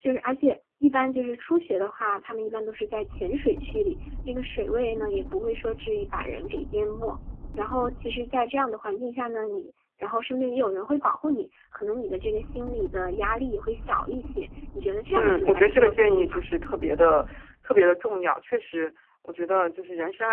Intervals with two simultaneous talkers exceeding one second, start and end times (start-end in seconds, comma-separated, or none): 15.1-16.4